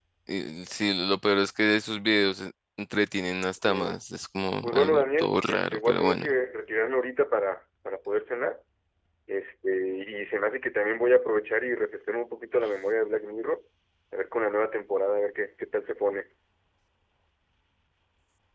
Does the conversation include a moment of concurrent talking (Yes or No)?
Yes